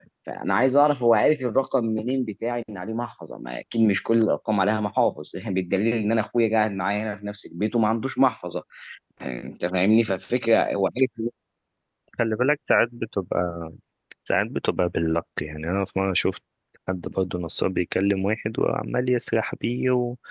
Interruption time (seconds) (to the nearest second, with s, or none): none